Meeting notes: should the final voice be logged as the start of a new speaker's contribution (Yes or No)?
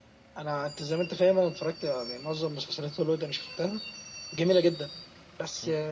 No